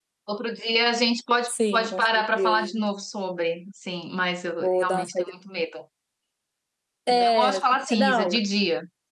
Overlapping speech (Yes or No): Yes